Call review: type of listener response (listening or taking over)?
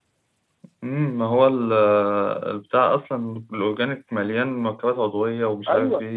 taking over